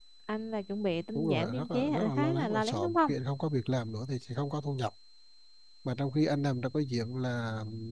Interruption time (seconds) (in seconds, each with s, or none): 1.1 s